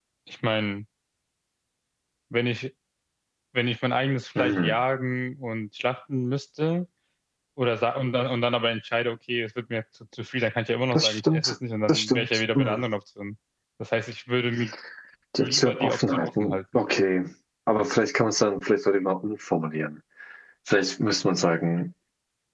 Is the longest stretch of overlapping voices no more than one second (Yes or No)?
No